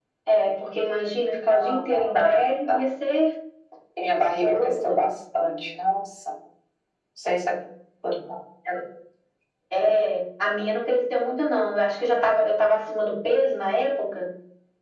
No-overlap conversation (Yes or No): No